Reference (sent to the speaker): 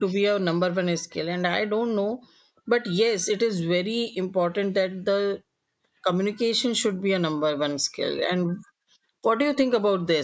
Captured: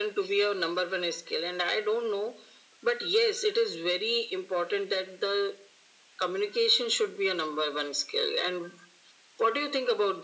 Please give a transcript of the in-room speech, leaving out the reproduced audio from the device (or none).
none